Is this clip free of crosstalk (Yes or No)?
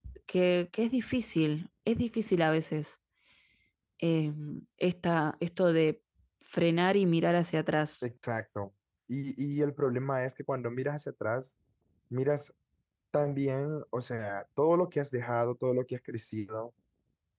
Yes